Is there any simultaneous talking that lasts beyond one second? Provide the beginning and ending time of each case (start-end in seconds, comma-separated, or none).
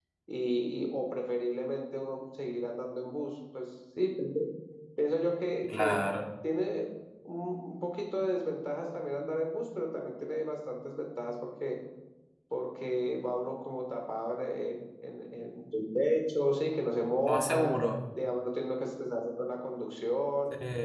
none